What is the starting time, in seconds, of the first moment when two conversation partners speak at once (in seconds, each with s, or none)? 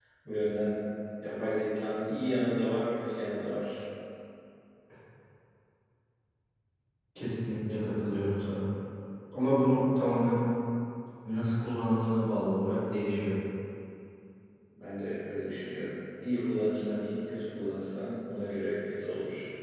none